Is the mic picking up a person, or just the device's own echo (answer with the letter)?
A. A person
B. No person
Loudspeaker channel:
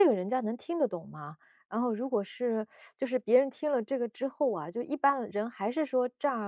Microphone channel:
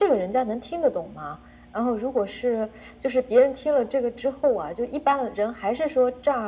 B